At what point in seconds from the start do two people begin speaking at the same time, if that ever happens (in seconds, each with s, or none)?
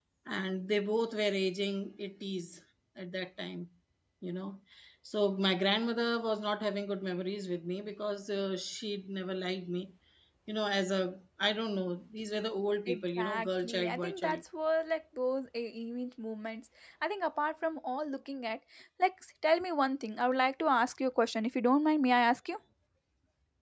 12.9 s